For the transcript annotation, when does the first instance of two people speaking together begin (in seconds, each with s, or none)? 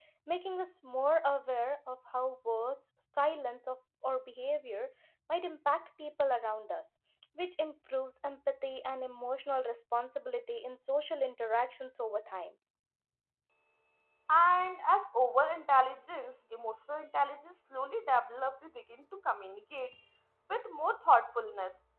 none